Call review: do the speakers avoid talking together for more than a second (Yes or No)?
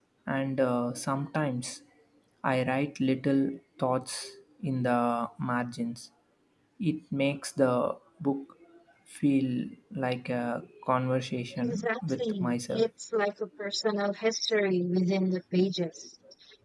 No